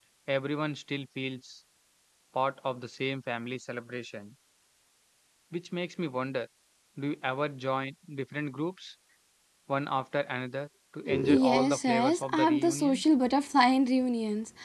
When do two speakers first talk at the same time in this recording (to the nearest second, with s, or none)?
11 s